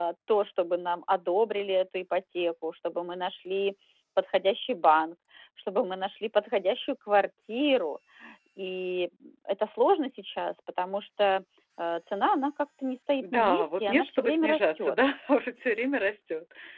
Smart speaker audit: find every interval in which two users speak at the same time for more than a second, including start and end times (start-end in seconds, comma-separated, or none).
13.2-14.9